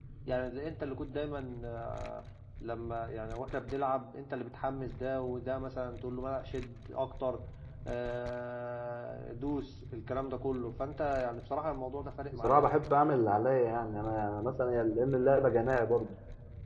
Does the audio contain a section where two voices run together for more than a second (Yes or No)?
No